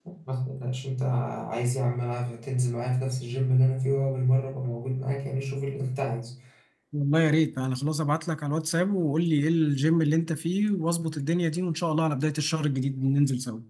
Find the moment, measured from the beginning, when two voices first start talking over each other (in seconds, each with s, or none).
none